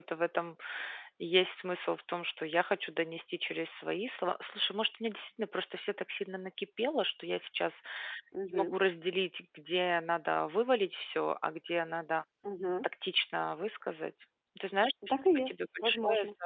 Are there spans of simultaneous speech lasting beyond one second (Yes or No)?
Yes